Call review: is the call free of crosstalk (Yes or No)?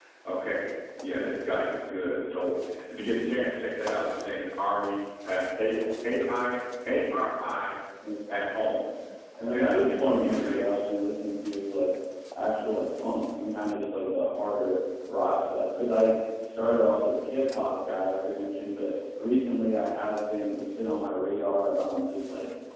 No